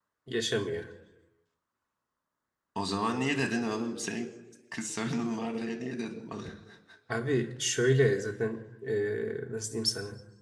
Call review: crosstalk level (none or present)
none